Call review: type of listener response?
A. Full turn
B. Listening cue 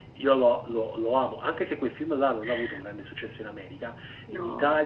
B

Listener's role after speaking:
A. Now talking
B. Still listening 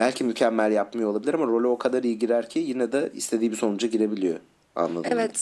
A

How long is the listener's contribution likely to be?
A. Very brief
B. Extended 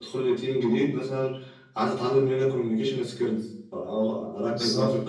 A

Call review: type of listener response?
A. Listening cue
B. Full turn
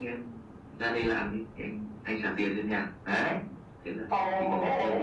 B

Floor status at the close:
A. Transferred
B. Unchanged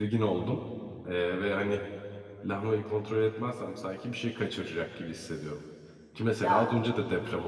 B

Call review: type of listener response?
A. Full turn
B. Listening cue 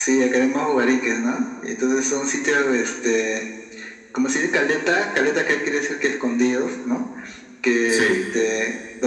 B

